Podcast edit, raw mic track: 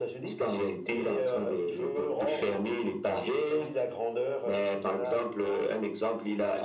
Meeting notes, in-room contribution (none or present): none